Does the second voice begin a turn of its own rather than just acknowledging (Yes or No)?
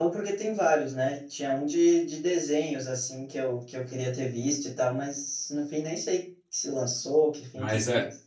Yes